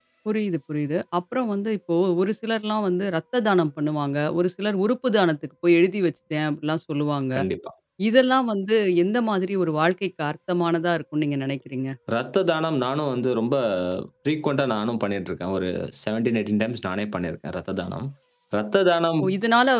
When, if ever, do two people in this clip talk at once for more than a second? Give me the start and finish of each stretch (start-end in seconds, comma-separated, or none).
none